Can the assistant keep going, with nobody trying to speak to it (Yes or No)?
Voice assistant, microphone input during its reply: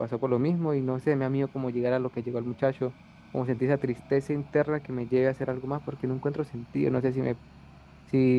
No